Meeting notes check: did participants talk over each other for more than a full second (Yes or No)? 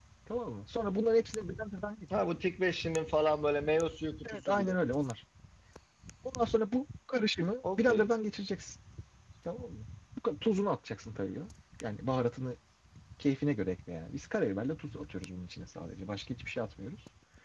No